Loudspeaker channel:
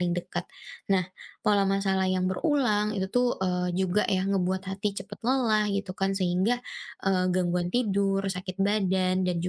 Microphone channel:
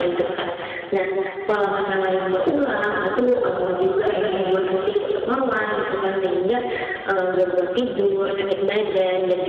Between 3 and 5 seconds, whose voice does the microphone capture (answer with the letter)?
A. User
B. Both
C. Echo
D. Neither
C